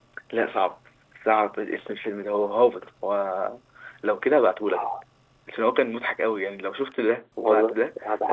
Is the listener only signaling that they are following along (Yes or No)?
No